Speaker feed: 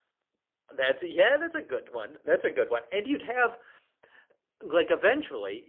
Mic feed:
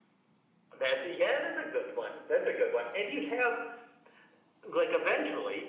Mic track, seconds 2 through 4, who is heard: echo only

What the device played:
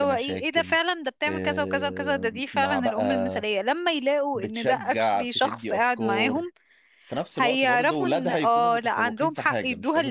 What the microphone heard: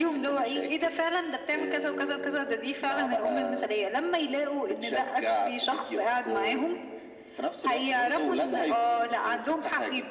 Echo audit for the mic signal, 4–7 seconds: echo only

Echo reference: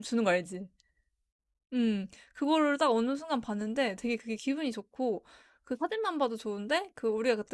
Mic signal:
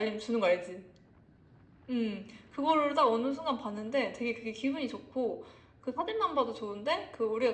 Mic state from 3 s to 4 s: echo only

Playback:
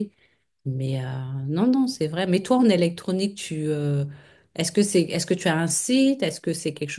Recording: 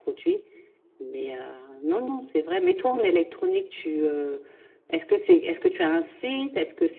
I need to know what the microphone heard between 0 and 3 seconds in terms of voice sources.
echo only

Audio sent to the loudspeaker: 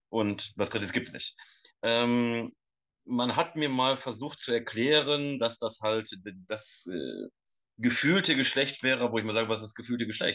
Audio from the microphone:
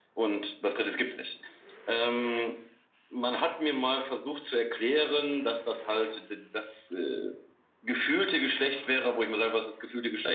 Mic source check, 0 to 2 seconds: echo only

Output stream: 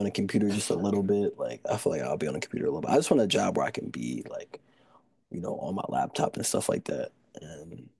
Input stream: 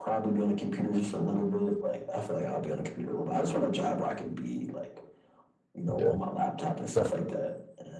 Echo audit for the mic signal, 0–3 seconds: echo only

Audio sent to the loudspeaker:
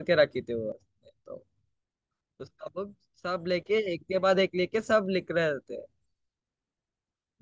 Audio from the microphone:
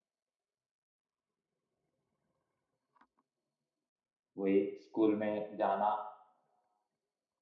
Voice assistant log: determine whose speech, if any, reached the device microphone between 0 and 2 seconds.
neither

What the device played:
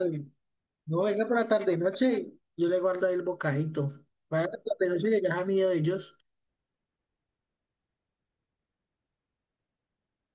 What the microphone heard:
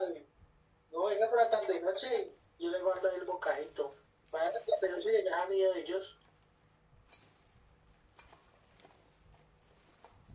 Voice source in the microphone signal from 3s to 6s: echo only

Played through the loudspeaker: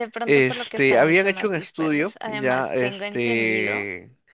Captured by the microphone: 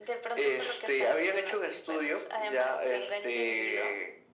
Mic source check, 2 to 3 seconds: echo only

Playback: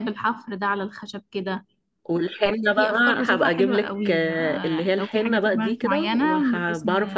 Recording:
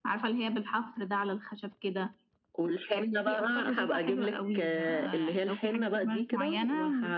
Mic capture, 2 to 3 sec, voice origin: echo only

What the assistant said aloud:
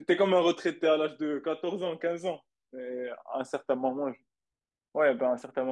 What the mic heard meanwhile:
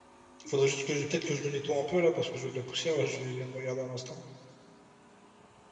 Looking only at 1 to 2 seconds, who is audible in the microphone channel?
user only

